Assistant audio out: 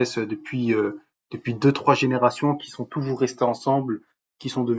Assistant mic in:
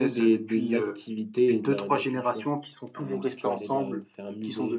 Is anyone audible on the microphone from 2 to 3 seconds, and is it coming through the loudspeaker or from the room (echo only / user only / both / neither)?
both